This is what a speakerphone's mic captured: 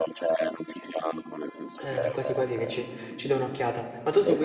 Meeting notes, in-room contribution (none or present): present